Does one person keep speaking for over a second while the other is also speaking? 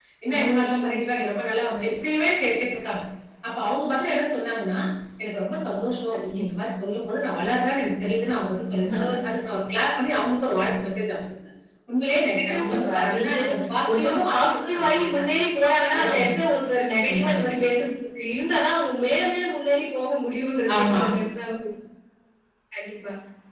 Yes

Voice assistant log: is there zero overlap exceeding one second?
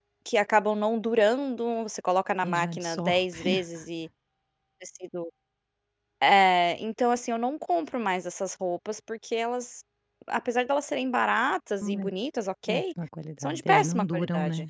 No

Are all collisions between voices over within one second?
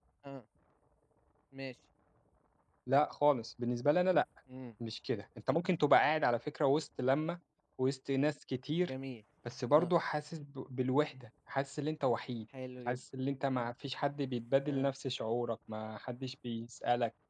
Yes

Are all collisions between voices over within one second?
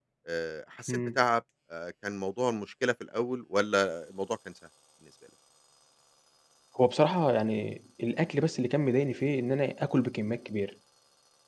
Yes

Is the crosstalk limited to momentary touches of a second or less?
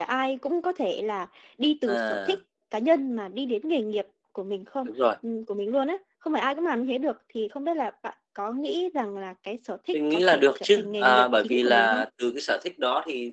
No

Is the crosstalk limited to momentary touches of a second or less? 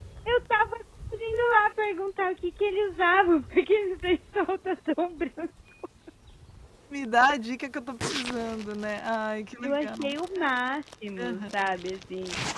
Yes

